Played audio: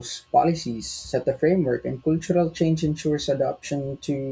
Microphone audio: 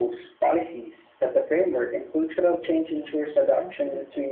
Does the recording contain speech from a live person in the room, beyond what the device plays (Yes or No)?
Yes